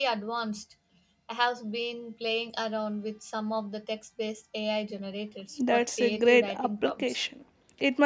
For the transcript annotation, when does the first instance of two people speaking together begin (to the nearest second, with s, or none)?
6 s